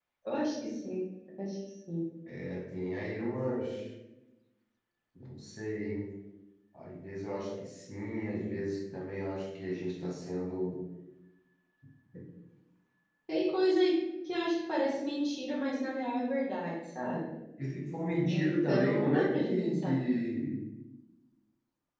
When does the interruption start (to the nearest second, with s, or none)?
18 s